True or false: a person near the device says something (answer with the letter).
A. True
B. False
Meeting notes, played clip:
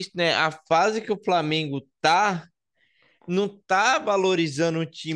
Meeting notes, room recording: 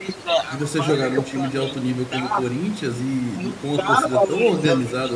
A